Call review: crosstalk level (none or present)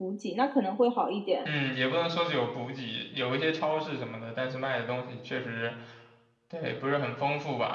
none